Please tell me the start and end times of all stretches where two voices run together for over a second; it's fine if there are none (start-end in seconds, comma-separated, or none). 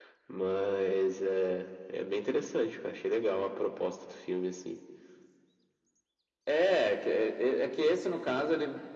none